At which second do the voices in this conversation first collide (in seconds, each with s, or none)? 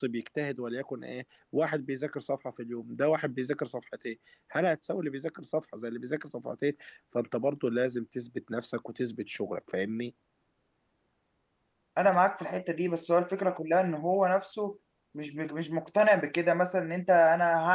none